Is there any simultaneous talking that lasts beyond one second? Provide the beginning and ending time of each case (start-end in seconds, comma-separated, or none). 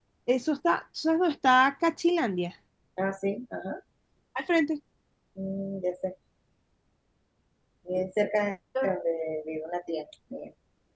none